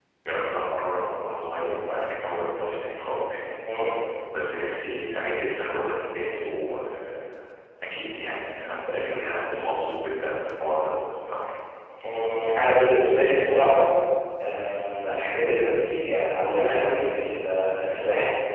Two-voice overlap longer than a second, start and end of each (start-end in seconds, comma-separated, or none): none